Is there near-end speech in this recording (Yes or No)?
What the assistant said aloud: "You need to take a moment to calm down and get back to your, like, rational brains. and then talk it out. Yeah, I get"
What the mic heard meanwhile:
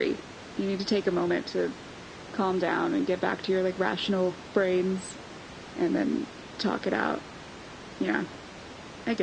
No